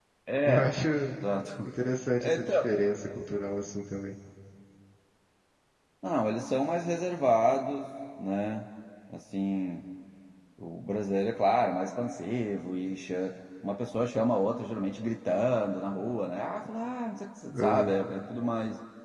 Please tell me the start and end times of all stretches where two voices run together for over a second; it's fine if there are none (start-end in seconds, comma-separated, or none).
none